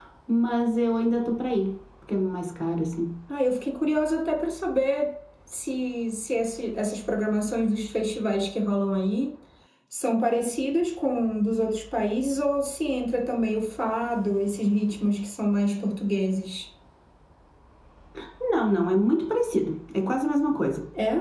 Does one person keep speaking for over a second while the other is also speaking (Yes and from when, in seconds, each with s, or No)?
No